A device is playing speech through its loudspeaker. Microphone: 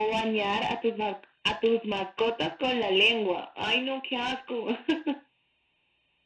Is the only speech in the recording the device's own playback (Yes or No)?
Yes